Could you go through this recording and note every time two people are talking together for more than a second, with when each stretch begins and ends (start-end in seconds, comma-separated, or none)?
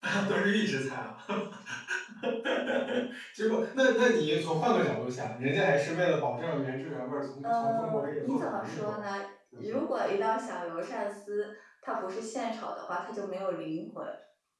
7.4-9.1